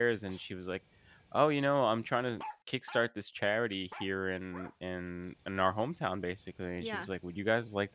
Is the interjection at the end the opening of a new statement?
No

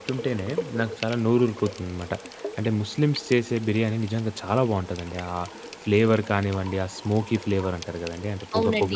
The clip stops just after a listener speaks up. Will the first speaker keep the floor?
No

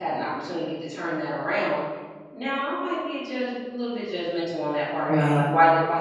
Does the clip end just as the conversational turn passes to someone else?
No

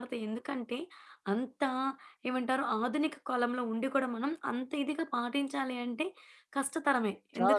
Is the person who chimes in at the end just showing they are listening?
Yes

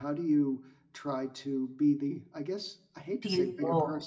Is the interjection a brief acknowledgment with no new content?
Yes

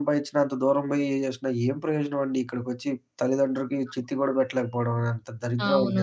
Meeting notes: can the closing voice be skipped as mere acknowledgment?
No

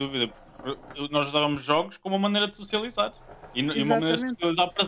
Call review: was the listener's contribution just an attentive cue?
Yes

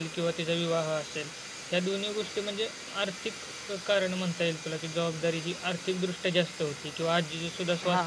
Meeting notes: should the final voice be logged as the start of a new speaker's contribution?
No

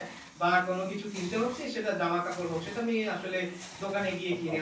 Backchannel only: Yes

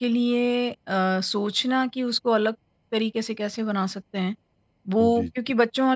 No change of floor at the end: Yes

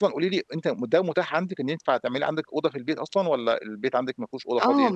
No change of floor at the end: No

